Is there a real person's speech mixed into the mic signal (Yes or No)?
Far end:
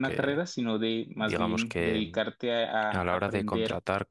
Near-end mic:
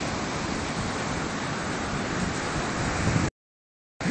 No